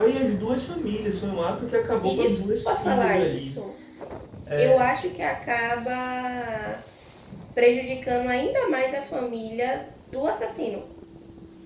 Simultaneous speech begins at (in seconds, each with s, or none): 2.0 s